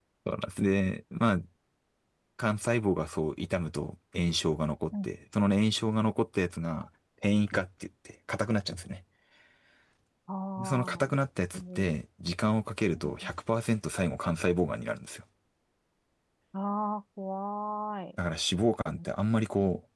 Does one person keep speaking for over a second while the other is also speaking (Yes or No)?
No